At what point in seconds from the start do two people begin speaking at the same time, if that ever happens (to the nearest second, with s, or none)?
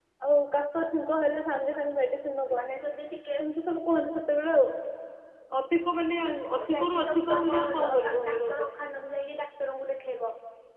7 s